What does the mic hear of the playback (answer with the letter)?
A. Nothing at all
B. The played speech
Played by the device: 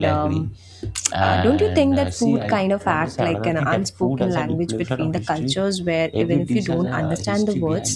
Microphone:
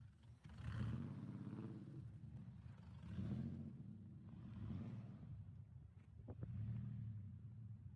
A